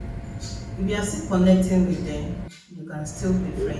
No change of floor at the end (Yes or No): Yes